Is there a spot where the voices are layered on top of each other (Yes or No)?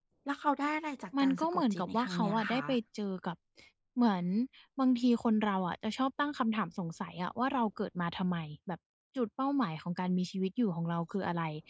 Yes